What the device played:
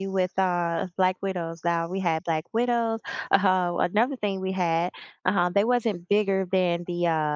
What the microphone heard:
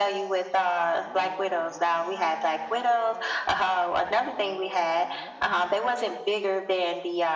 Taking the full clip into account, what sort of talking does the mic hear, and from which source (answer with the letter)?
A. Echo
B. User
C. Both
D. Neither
A